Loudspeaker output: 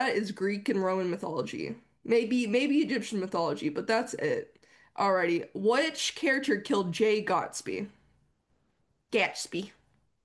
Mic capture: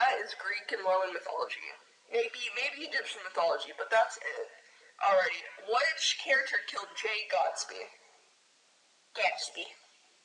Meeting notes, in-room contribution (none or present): none